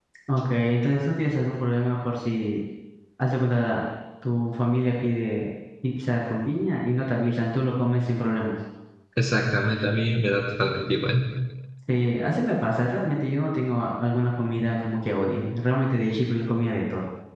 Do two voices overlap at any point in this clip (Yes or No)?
No